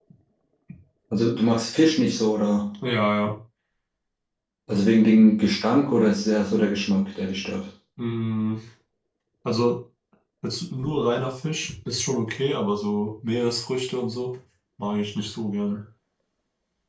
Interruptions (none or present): none